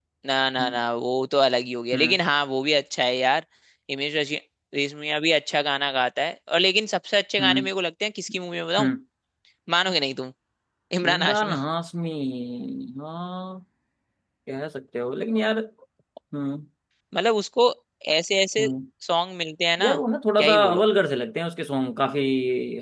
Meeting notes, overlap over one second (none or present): none